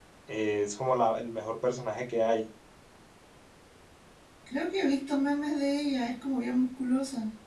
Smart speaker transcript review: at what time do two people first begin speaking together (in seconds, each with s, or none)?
none